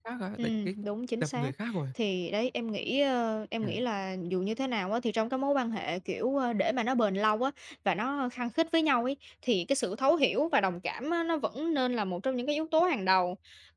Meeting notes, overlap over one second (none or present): none